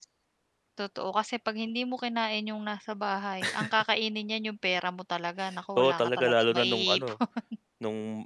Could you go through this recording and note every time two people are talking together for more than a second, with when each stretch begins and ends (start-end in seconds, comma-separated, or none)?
5.8-7.1